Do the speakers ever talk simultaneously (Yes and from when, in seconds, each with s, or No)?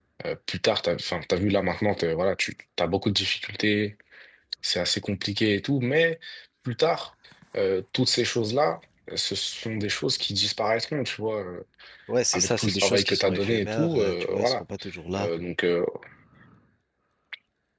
Yes, from 12.3 s